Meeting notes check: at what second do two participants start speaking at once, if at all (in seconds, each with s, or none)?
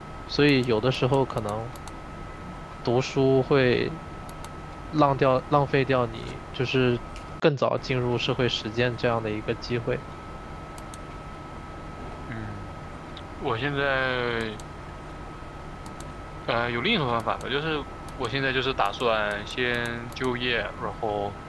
none